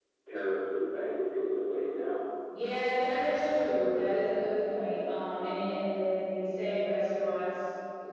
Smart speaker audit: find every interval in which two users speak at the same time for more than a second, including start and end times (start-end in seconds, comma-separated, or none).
none